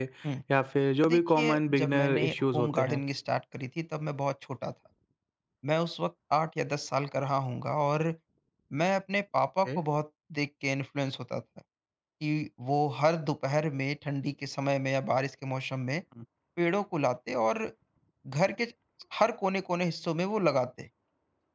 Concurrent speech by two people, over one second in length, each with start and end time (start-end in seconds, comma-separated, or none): 1.1-3.0